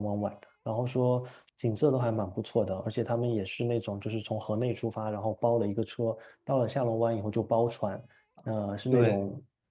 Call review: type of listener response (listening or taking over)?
listening